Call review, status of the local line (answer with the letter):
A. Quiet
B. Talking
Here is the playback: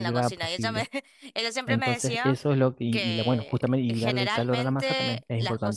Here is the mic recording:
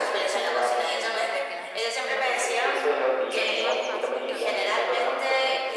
B